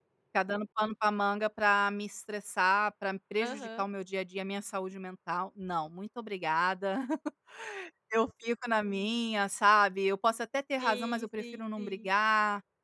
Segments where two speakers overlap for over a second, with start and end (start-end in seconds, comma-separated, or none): 10.8-12.1